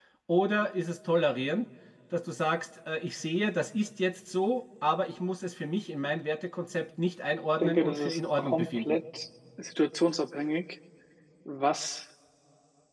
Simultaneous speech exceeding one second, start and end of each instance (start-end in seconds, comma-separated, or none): 7.6-9.0